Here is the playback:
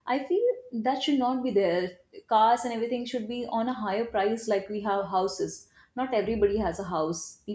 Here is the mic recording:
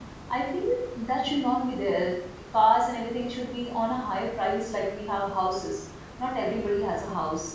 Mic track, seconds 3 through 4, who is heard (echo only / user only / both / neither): echo only